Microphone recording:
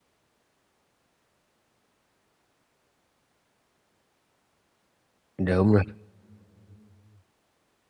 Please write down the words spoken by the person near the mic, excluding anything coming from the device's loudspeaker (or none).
đúng rồi.